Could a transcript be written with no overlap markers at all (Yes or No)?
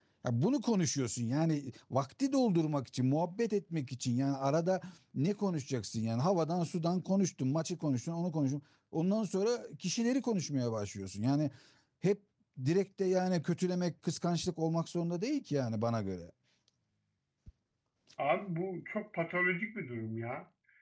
Yes